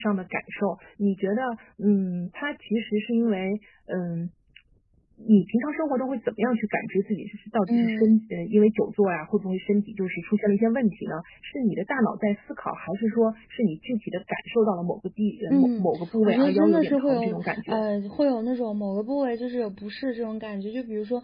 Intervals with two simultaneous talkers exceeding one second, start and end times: 16.3-17.8

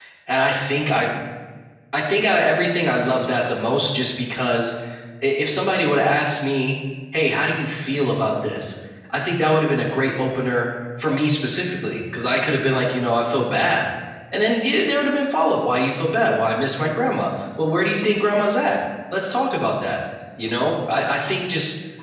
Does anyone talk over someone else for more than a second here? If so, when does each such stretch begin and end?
none

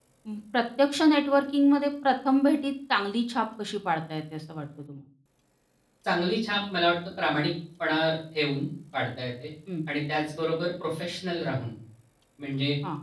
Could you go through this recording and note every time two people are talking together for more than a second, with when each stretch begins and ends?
none

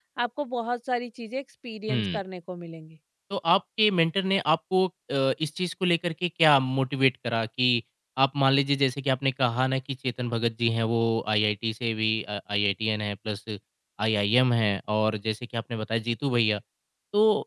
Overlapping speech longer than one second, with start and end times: none

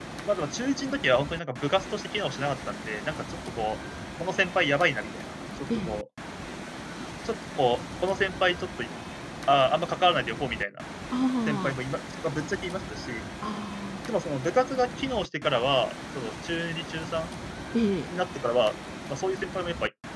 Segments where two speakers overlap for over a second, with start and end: none

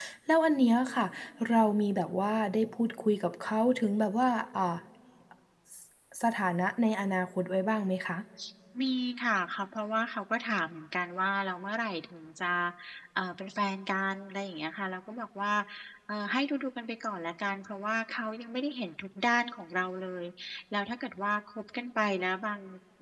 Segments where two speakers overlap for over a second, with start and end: none

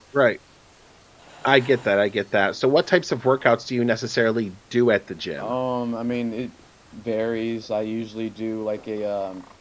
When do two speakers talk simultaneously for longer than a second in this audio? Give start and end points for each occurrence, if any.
none

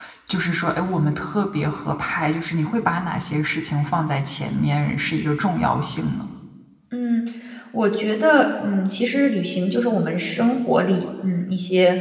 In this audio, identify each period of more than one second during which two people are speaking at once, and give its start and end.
none

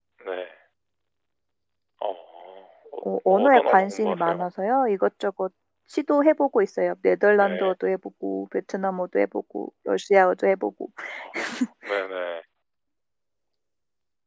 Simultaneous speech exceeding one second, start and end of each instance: 3.3-4.5

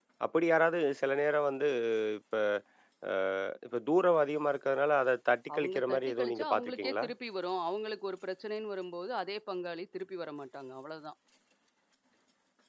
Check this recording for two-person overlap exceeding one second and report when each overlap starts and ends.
5.5-7.0

